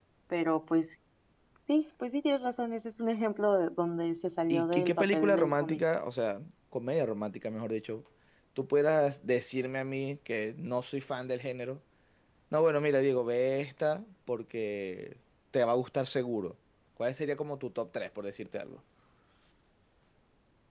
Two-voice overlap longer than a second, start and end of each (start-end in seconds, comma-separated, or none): 4.5-5.8